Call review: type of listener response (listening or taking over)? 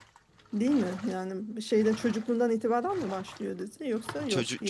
taking over